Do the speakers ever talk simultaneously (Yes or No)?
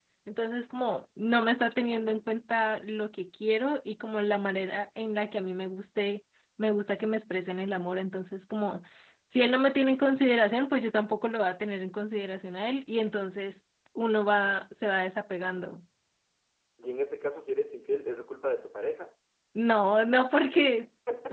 No